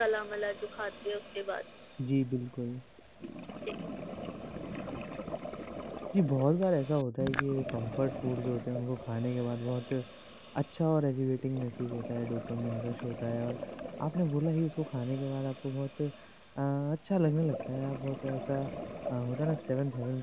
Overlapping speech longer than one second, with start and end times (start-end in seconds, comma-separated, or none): none